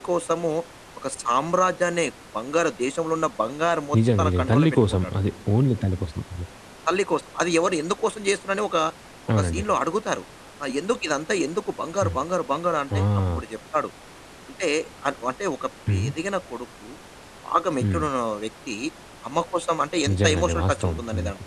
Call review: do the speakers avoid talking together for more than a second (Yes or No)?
No